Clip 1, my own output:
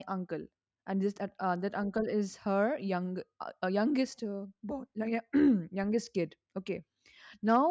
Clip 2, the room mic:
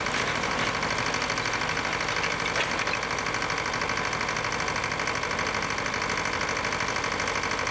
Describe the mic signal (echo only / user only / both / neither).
neither